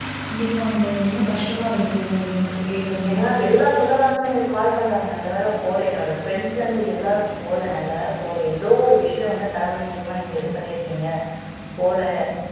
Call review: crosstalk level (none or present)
none